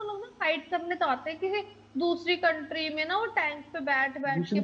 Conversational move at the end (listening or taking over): taking over